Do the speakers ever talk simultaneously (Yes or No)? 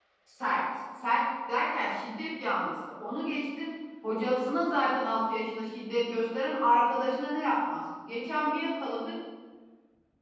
No